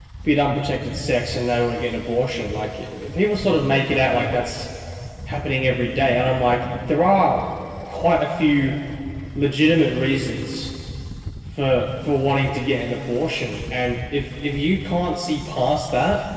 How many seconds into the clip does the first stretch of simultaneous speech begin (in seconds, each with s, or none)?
none